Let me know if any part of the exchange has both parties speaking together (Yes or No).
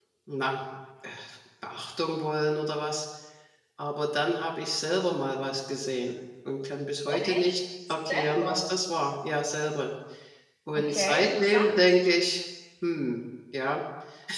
Yes